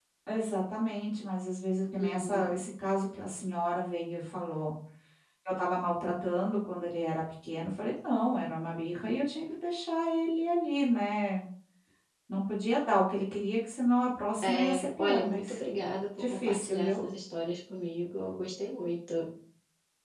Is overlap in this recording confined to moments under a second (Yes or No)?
No